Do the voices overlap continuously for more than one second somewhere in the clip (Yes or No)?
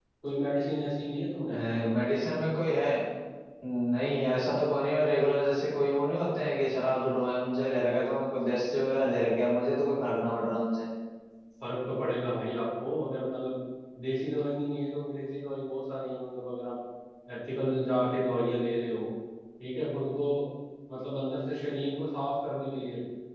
No